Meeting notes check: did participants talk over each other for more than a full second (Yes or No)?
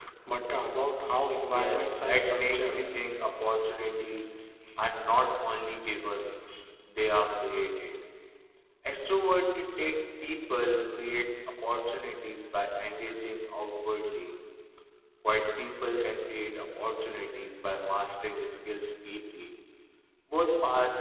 Yes